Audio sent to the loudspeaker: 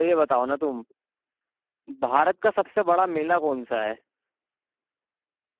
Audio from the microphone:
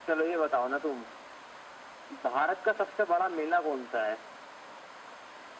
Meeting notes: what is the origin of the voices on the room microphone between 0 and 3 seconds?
echo only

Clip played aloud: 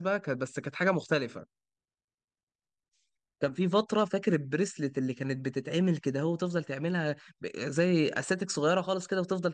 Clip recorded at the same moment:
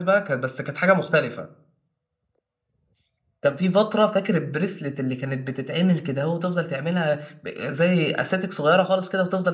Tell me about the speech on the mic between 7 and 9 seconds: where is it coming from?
echo only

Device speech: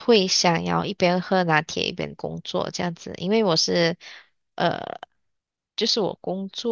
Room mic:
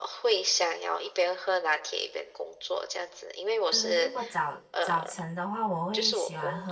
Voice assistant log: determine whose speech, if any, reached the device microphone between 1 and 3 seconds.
echo only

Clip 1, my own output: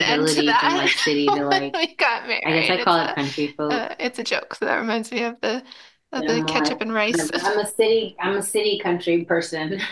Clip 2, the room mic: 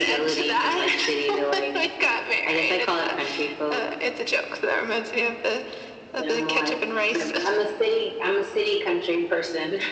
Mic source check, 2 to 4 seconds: echo only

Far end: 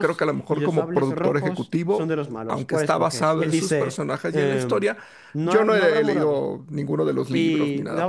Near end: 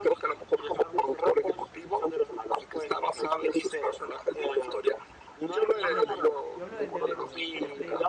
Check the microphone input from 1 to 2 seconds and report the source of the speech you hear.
echo only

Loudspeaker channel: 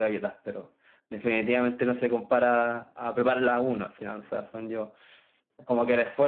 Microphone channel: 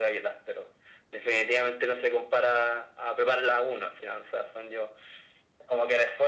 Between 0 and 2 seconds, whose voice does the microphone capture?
echo only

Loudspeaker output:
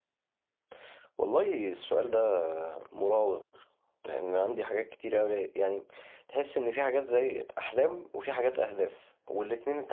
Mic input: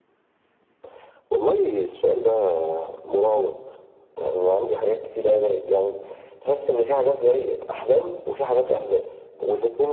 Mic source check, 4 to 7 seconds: echo only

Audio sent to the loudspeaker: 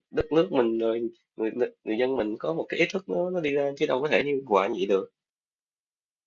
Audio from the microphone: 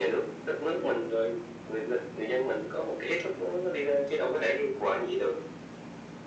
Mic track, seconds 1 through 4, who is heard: echo only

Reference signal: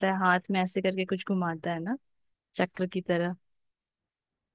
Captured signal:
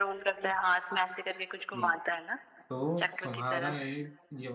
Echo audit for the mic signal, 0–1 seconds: echo only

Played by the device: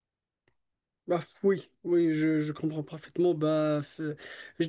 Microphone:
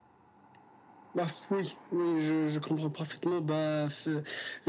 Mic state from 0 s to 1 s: neither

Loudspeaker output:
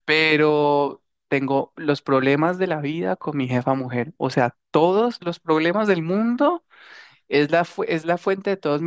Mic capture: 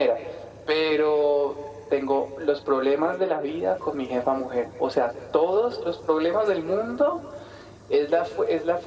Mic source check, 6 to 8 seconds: echo only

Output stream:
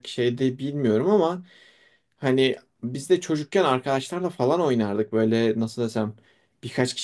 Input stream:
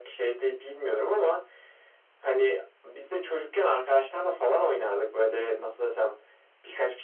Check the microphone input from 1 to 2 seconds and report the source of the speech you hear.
echo only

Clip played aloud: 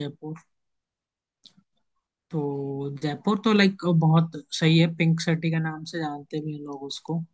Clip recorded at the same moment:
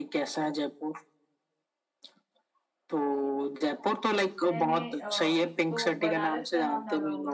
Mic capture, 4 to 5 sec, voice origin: both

